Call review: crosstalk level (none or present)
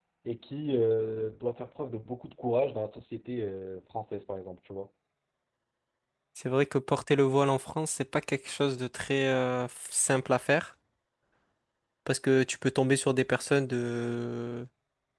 none